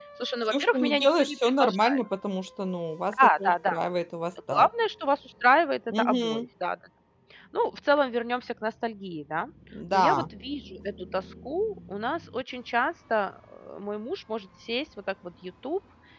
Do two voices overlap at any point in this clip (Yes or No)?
Yes